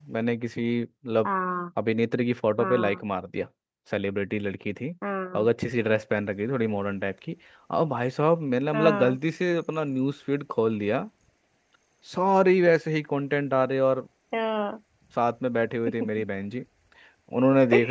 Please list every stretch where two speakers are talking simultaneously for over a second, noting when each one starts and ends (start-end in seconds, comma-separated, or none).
none